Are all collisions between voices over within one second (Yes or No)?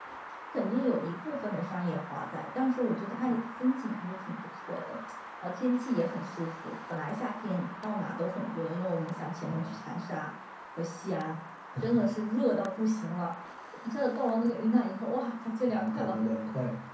Yes